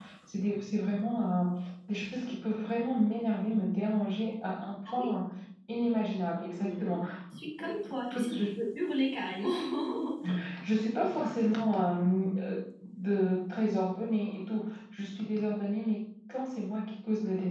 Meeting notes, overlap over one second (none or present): none